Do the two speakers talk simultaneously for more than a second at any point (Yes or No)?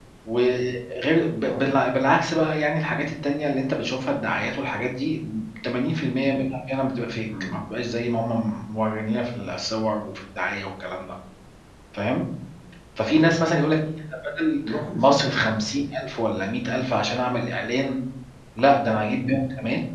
No